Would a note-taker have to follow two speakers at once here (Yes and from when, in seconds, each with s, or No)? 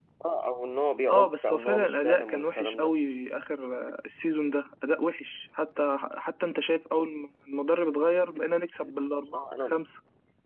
Yes, from 1.1 s